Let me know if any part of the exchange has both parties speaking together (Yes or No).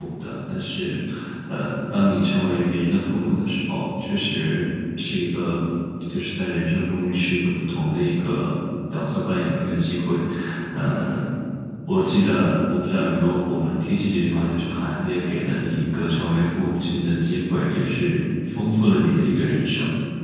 No